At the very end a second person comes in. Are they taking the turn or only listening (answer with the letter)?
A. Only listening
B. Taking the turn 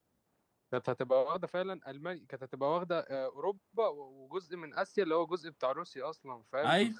A